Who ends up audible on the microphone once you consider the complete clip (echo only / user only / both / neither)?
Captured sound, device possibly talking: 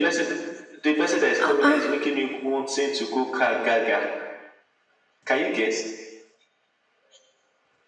both